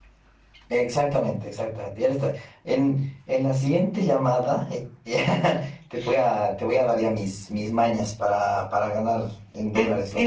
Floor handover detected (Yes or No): Yes